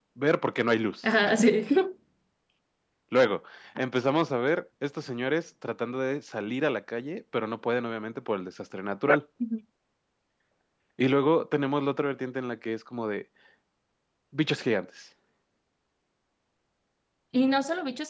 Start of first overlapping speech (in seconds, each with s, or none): none